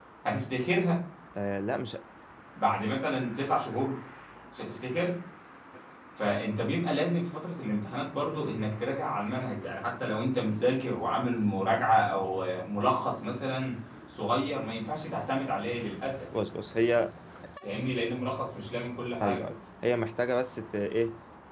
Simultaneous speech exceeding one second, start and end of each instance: none

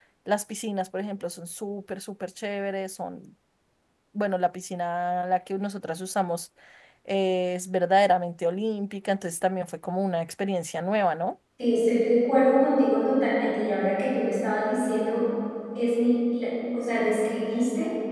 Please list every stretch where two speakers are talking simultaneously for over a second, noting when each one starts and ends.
none

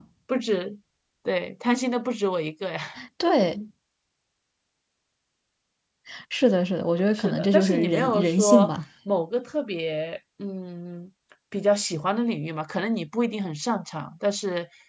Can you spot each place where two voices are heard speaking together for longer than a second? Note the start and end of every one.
7.1-8.7

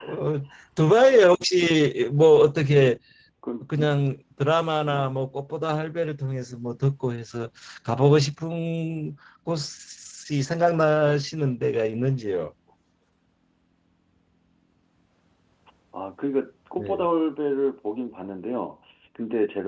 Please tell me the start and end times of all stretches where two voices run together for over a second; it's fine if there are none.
none

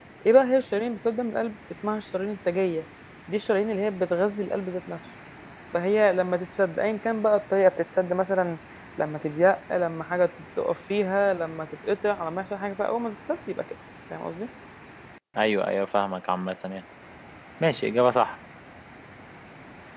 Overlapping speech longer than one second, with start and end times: none

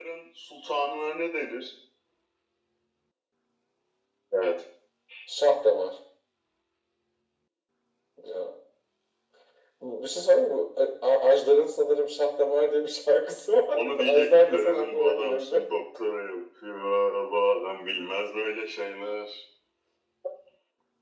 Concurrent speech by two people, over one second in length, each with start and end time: 13.7-15.6

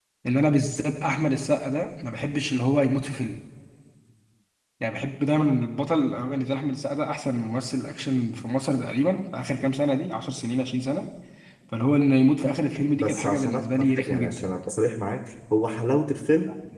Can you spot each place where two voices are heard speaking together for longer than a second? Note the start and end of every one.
12.9-14.5

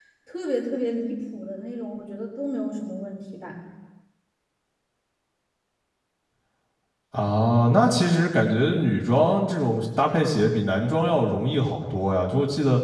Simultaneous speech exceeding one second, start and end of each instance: none

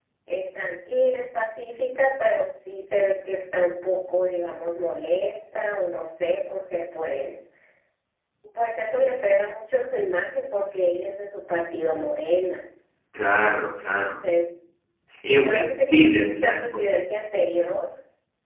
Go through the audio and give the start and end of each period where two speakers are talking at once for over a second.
15.4-16.6

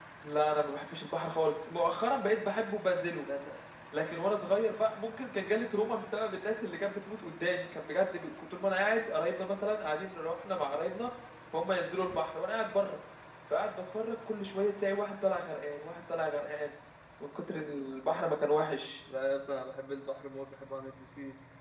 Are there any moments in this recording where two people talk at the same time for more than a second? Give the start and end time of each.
none

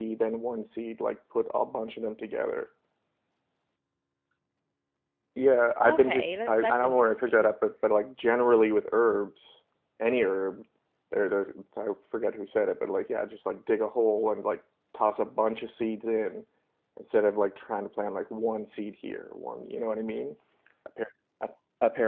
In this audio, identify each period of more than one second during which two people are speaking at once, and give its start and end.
5.9-7.5

